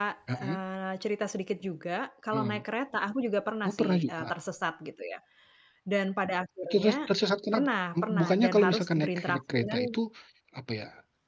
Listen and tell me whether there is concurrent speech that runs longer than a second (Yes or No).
Yes